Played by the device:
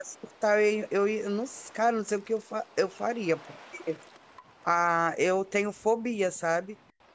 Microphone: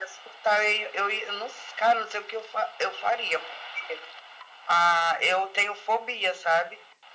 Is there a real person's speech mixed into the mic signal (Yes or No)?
No